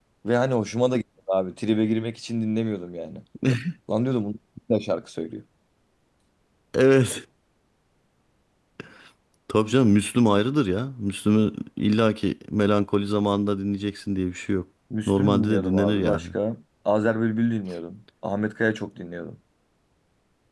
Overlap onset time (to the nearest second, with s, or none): 15 s